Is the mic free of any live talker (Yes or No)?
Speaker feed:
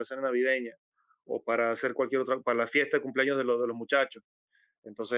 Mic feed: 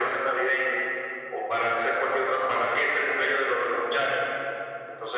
Yes